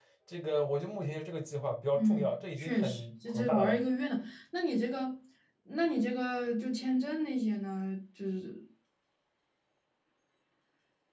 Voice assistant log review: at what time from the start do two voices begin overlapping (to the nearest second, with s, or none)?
2 s